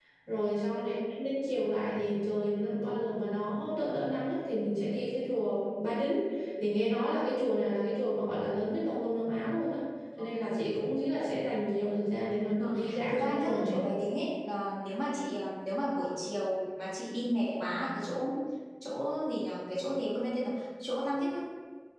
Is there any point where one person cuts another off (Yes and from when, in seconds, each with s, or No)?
Yes, from 12.6 s